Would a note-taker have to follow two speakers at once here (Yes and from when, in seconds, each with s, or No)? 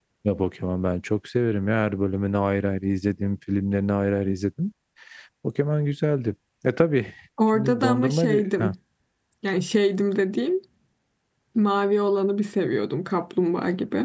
Yes, from 7.4 s